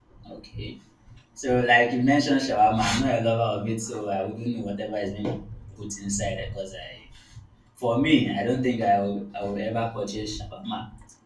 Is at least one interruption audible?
No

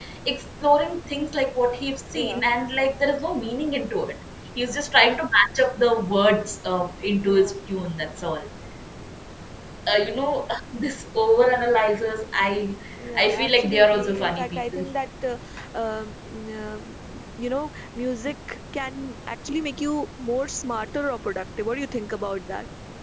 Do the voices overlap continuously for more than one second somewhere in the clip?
Yes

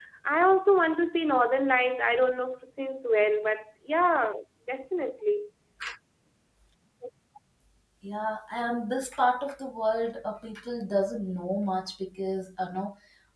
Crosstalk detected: No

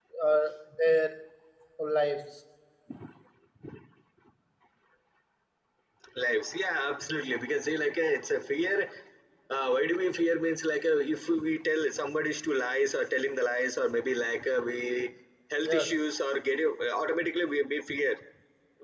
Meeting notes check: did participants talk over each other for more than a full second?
No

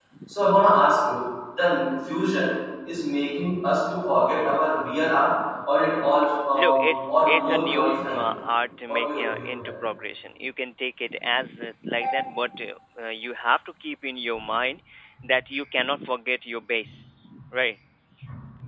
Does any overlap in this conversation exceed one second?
Yes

